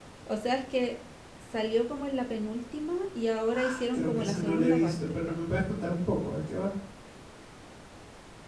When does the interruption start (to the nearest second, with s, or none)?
4 s